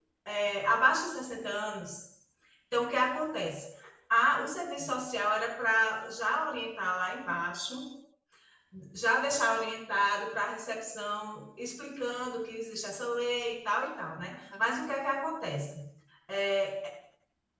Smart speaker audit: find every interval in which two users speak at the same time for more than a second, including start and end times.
none

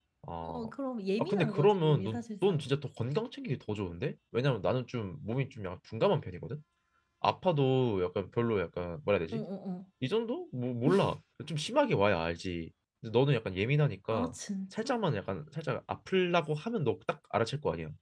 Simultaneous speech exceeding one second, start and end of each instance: 1.2-2.6

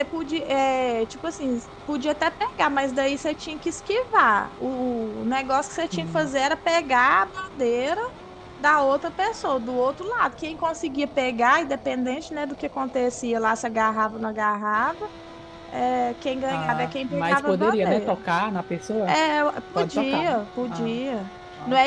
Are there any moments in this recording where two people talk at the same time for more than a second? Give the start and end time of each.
16.5-18.1, 19.8-21.0

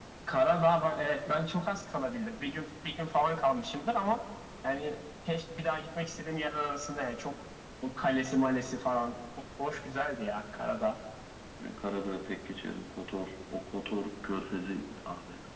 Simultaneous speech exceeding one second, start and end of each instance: none

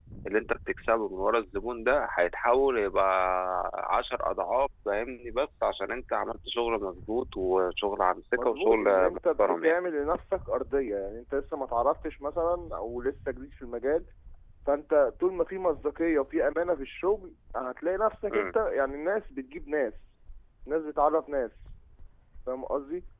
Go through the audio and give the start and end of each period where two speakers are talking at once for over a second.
8.4-9.7

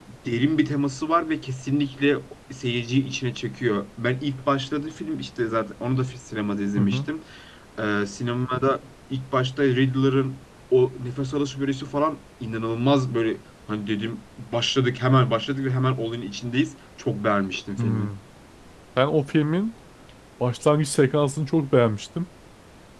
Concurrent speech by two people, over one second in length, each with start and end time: none

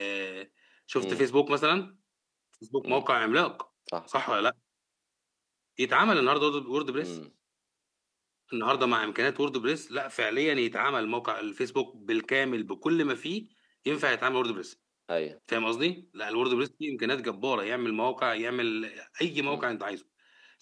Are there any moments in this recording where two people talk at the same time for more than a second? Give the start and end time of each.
none

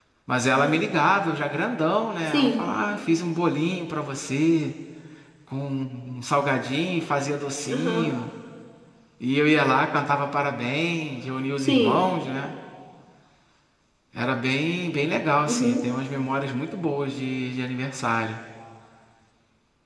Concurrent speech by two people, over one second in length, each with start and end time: none

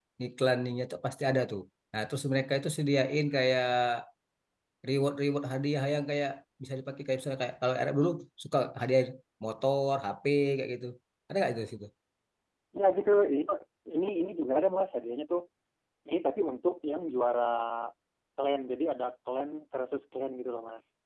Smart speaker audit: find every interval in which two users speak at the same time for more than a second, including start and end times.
none

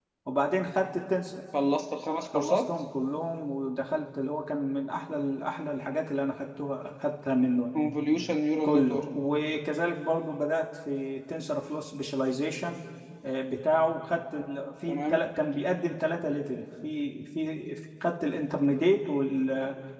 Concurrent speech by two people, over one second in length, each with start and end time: none

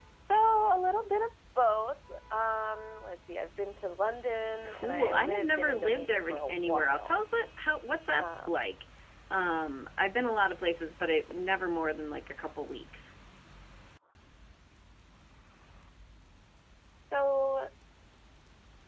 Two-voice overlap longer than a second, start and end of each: 4.7-7.2

